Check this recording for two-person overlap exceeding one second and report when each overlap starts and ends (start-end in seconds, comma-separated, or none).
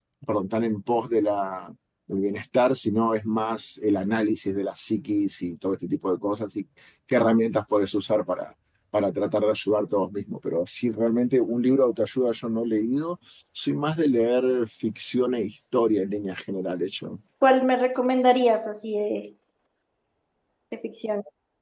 none